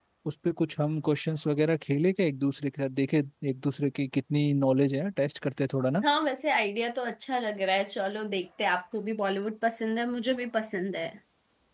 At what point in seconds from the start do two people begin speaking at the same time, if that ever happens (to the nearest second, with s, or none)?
none